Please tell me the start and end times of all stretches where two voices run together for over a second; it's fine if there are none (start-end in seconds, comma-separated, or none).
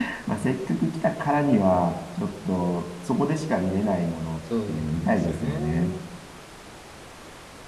4.7-5.9